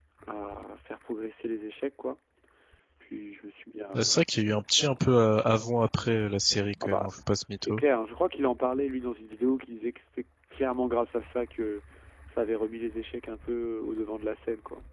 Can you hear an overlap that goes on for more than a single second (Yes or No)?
No